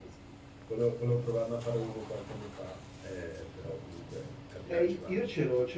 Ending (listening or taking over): taking over